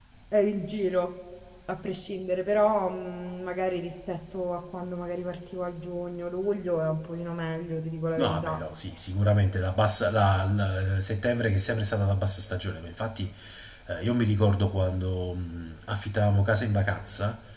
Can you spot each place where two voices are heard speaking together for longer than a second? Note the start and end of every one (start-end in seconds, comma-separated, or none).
none